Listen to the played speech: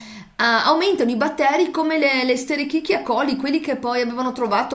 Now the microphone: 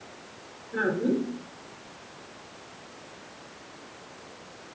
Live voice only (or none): Mhm.